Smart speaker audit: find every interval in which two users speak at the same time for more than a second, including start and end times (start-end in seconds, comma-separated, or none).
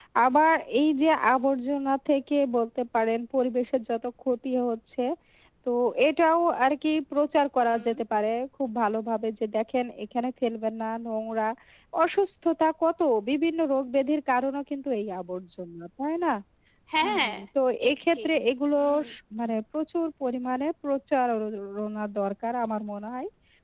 none